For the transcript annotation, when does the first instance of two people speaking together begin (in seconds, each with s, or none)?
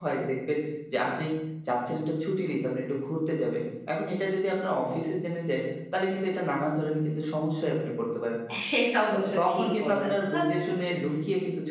9.1 s